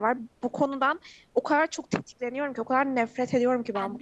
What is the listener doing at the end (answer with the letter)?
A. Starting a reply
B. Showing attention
B